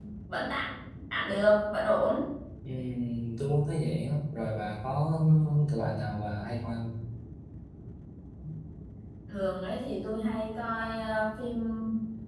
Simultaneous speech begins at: none

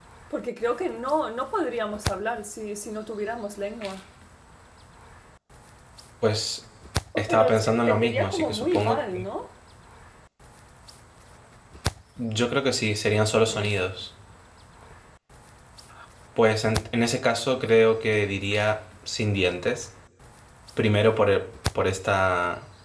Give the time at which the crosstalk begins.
7.2 s

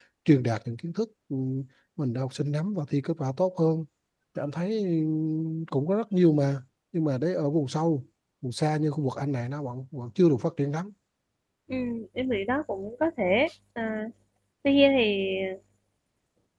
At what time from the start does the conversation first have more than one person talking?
none

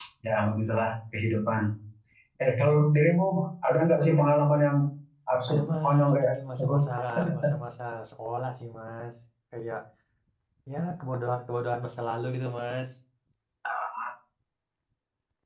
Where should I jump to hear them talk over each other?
5.5 s

